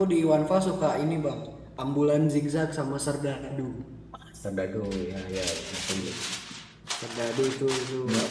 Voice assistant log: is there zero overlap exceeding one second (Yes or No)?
Yes